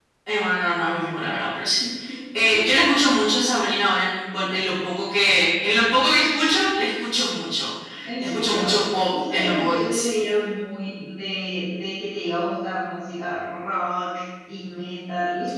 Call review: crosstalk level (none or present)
present